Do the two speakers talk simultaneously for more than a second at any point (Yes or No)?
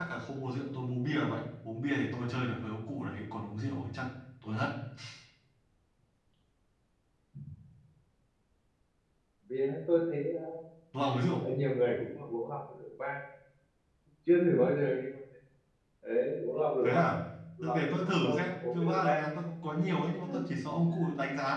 Yes